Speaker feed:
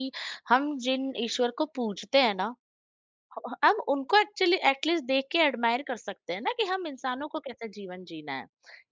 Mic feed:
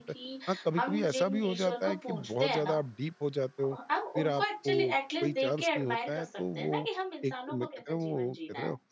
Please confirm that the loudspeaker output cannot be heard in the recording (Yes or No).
No